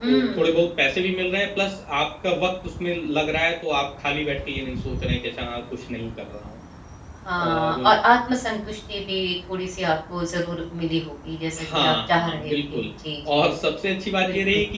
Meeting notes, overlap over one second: present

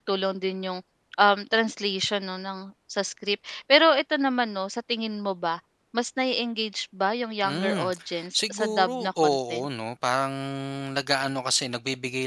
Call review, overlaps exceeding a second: present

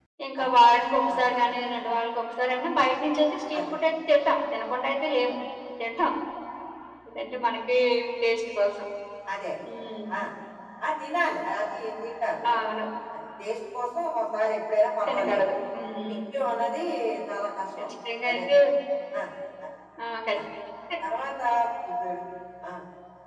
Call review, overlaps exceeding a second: none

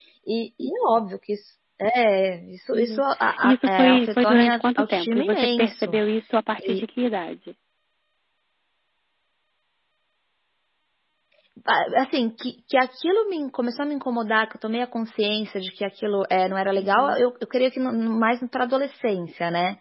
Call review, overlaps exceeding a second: present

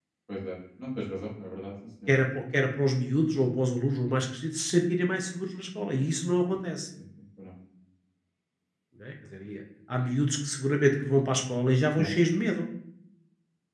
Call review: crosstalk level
none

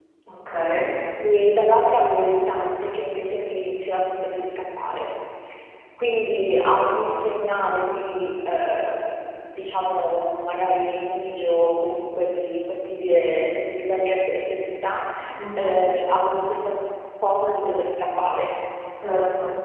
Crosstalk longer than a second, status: none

